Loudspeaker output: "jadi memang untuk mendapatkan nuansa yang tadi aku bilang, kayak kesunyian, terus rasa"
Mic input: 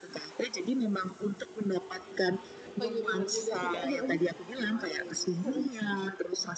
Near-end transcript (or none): Oh, iya bener juga sih, Kak. Heeh, mhm, heeh.